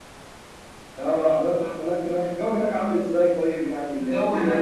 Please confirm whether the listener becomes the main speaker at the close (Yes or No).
Yes